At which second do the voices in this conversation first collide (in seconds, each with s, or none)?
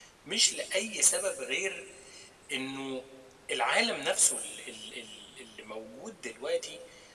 none